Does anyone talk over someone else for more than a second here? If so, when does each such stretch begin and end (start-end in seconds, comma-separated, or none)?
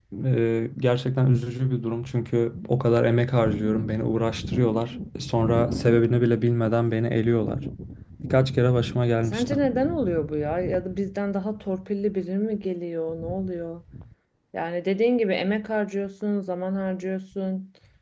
none